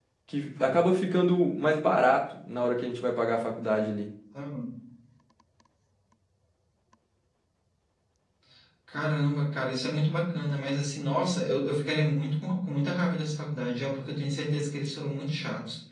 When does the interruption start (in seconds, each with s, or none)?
none